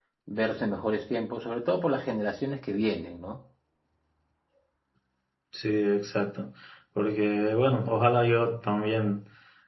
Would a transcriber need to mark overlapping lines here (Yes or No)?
No